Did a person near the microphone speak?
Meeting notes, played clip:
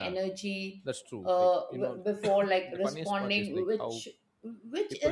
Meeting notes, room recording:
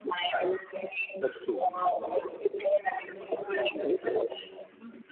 Yes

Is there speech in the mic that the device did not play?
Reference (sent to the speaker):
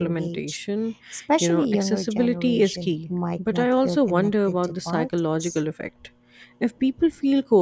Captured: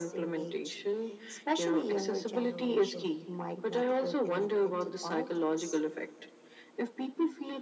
No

